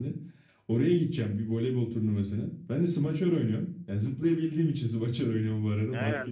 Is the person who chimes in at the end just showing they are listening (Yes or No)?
No